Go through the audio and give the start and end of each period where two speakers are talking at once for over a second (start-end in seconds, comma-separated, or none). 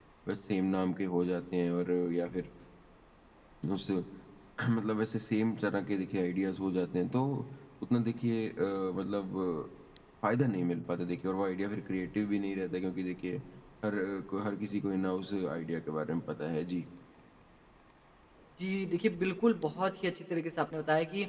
none